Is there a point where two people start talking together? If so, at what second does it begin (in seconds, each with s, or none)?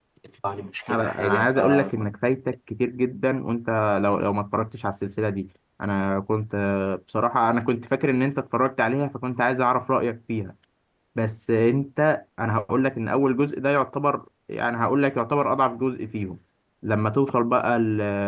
0.9 s